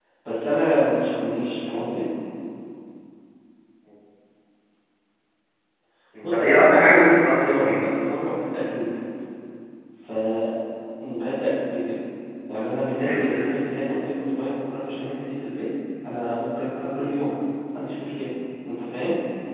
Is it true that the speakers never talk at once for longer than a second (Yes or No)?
No